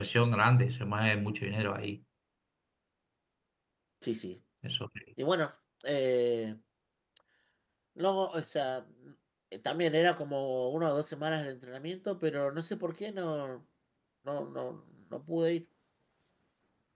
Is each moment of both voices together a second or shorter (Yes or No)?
Yes